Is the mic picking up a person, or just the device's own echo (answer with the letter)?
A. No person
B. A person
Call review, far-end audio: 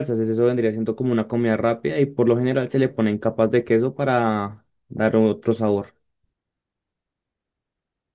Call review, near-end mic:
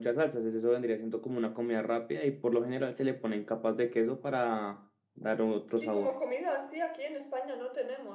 B